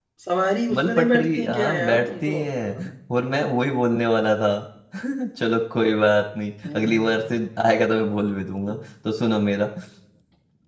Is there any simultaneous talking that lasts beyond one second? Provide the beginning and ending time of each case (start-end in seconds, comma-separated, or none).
0.7-2.8